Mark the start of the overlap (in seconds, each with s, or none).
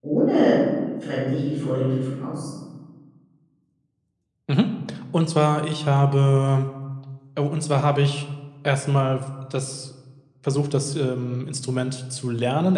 none